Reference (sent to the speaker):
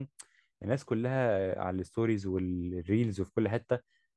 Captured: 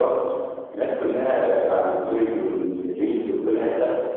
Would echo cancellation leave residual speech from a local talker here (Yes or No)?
No